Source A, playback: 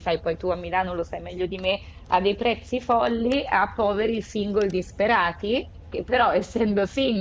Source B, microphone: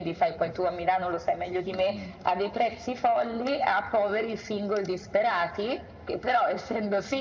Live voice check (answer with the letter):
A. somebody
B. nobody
A